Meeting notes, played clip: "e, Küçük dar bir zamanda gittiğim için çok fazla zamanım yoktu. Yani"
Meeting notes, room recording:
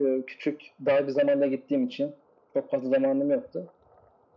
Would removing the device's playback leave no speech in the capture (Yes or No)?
Yes